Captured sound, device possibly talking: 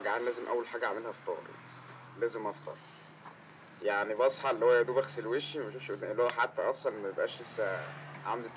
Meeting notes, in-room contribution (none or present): none